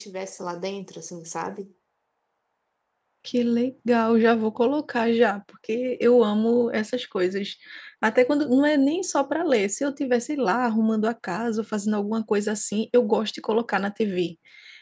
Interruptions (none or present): none